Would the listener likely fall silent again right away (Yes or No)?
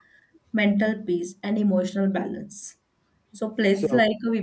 Yes